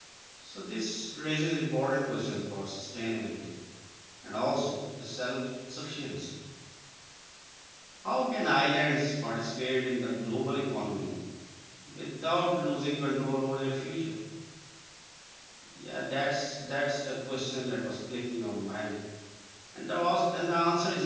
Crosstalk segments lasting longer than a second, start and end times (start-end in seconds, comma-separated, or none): none